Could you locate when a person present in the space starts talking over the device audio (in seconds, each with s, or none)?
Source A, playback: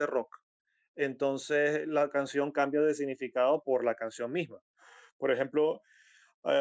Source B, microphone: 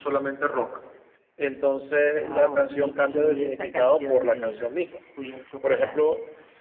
2.1 s